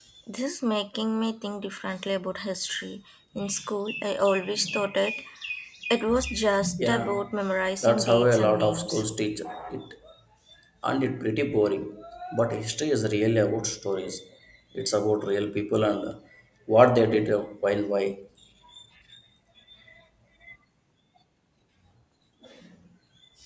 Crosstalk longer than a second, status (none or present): present